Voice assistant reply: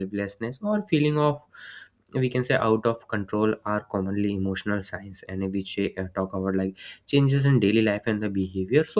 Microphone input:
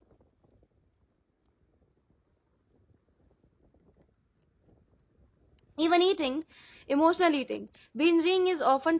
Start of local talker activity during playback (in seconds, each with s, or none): 5.8 s